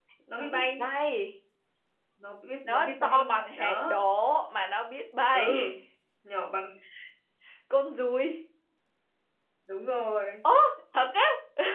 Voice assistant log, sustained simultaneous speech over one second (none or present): present